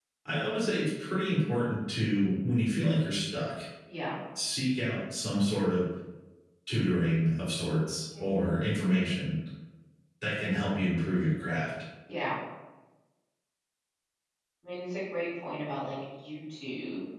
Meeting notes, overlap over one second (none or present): none